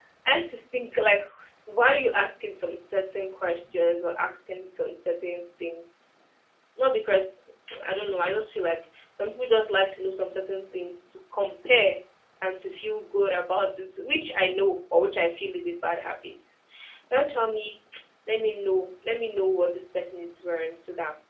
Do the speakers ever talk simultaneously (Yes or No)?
No